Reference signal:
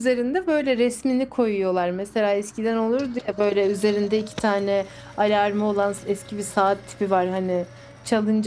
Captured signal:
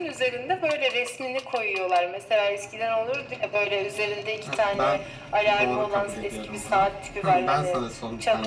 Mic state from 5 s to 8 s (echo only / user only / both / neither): both